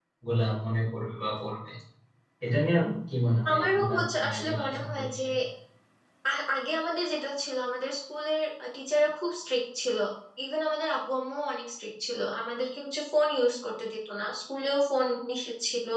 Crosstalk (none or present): present